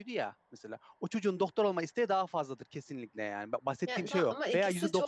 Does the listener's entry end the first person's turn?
Yes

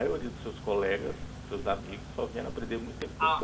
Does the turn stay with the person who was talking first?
No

